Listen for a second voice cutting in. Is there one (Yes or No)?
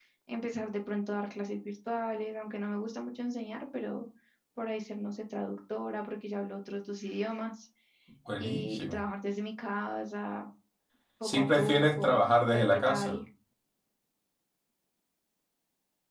Yes